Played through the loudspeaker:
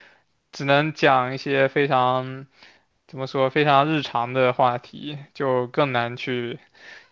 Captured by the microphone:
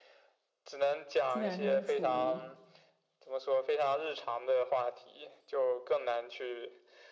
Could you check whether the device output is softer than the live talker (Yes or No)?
No